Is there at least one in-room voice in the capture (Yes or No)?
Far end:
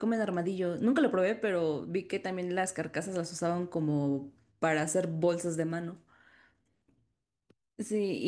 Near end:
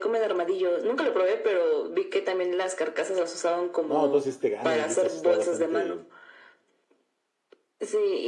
Yes